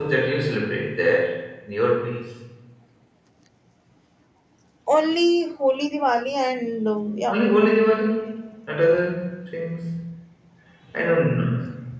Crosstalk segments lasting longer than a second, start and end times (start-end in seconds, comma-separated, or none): none